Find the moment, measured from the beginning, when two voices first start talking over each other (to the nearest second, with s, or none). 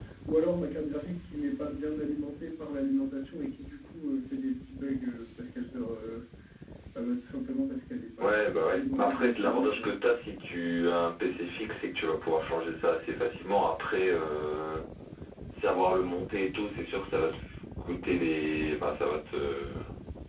8 s